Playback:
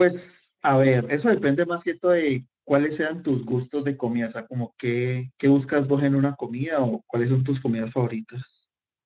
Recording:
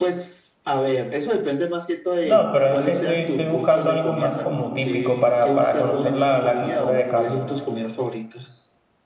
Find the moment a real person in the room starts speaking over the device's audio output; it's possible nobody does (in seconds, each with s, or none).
2.2 s